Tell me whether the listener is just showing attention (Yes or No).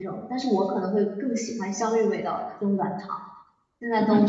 No